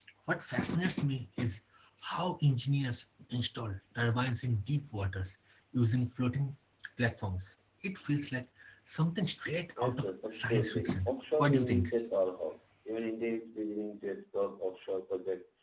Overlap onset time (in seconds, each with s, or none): 9.8 s